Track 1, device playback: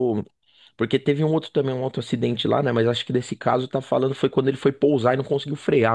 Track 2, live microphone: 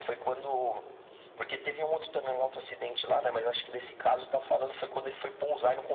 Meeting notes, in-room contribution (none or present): none